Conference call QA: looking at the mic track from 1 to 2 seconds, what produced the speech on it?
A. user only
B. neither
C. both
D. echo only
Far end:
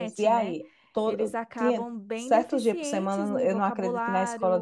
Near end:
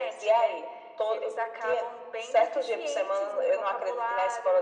D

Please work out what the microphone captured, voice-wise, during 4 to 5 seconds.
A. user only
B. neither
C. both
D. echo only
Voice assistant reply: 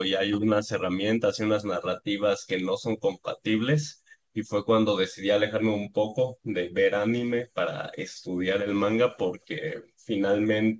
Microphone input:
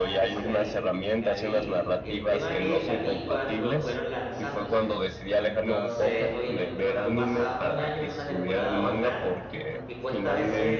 C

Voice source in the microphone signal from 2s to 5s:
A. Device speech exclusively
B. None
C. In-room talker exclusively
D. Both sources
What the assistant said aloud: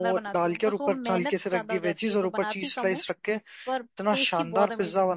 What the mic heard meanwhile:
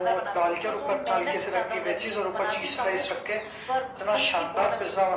A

